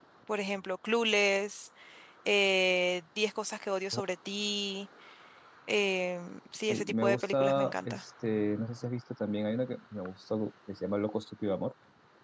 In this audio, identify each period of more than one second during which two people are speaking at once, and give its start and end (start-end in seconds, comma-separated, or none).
6.7-8.0